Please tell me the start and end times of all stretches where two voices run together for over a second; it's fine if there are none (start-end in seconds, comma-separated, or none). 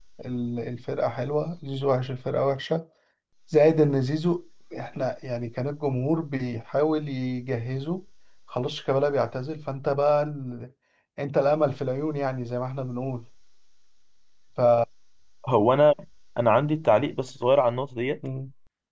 none